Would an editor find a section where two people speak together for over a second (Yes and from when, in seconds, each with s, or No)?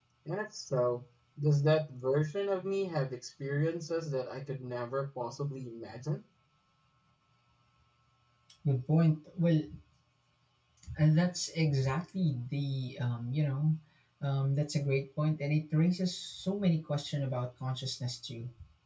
No